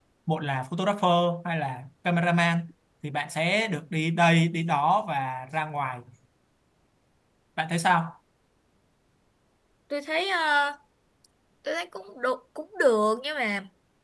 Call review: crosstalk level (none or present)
none